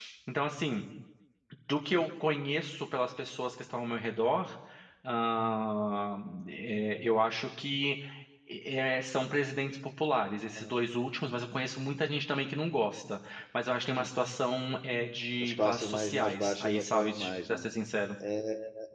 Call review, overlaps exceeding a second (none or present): present